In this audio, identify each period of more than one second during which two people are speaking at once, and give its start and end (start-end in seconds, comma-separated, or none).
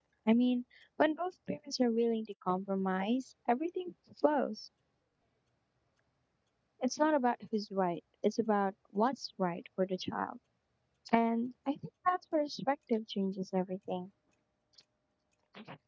none